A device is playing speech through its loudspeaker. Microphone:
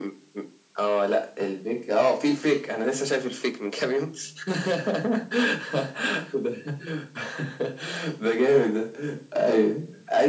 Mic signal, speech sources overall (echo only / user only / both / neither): echo only